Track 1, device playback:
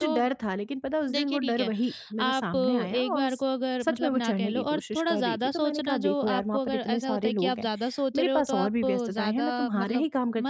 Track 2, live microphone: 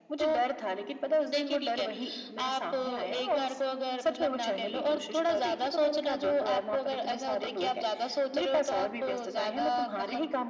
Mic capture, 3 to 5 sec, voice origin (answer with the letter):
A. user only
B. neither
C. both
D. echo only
D